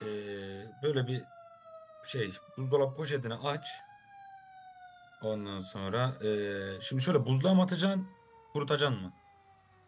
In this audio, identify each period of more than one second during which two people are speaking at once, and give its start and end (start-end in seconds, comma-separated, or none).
none